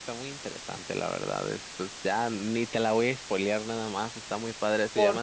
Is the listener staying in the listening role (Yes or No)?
Yes